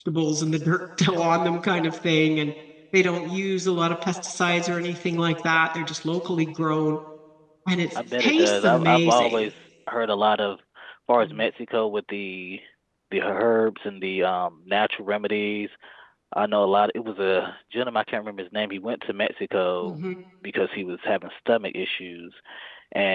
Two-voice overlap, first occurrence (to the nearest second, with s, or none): 8 s